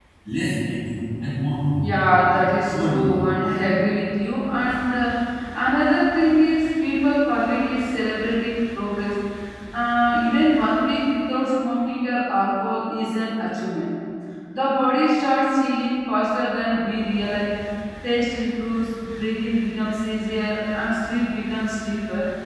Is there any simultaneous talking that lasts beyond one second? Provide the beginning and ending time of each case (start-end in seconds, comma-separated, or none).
1.8-3.2